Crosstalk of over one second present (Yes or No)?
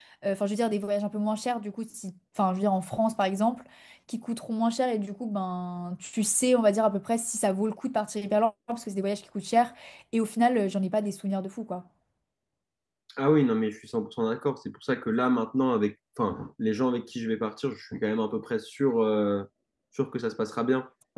No